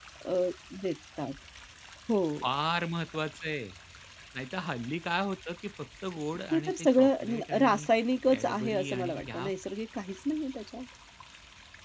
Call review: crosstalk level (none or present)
present